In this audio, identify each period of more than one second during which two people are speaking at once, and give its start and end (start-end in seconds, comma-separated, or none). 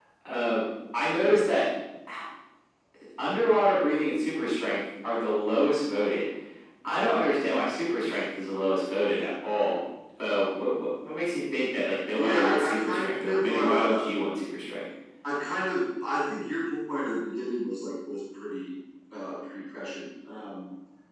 12.2-14.0